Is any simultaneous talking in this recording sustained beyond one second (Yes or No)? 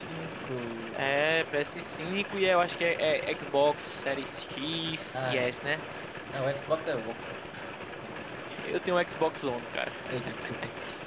No